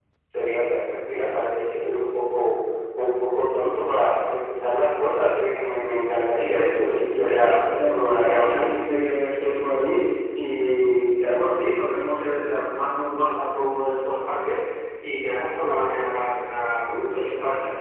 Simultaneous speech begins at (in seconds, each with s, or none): 6.5 s